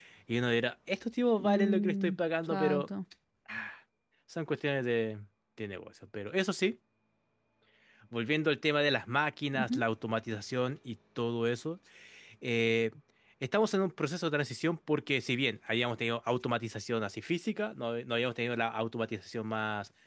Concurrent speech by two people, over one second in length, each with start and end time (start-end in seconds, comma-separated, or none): 1.4-2.9